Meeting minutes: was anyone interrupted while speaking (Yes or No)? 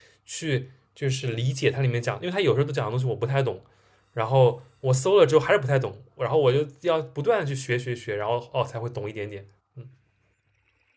No